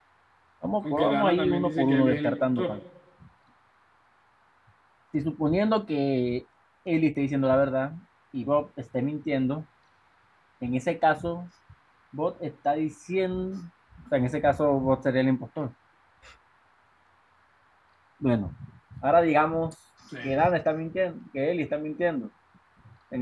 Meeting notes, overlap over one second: present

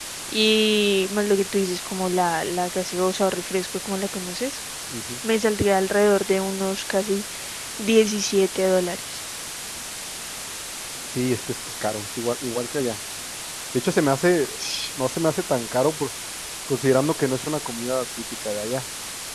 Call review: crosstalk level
none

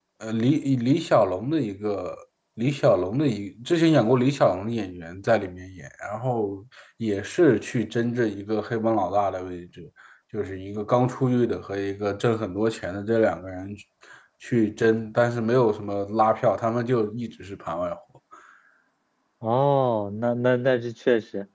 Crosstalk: none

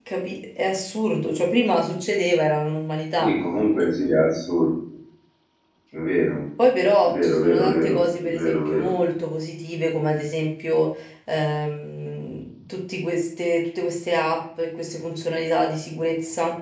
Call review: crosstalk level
present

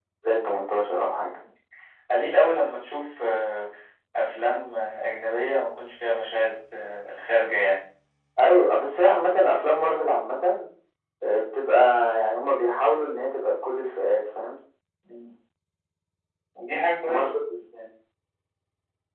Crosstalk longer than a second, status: none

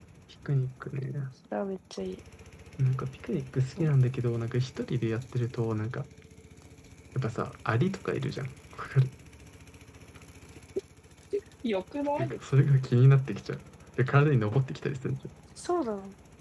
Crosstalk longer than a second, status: none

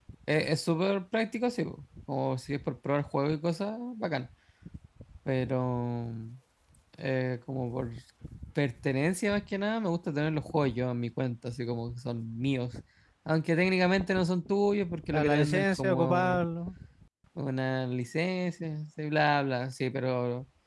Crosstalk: present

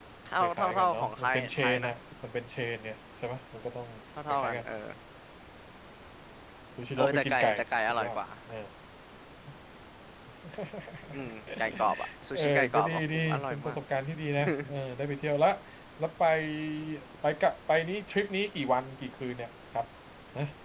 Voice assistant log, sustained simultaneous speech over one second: present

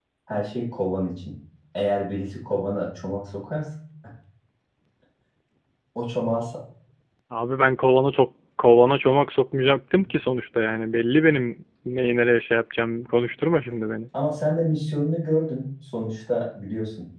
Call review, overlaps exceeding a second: none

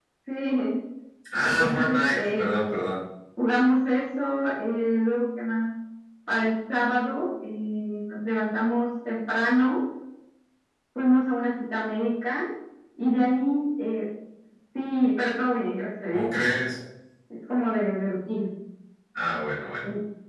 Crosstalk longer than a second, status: present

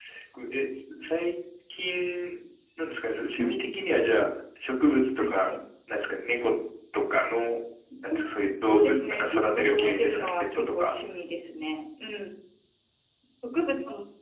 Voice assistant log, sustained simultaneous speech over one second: present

